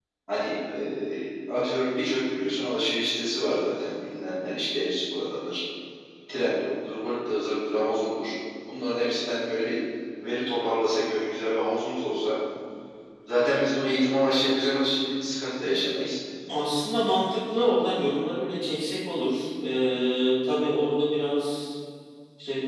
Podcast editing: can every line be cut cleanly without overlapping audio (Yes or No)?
Yes